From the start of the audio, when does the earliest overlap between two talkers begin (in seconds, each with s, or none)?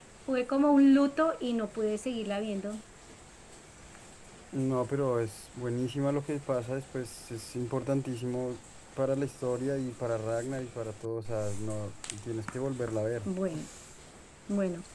none